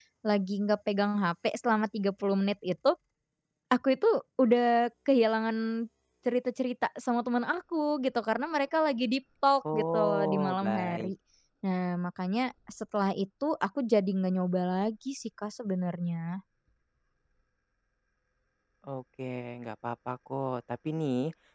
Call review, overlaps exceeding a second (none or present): present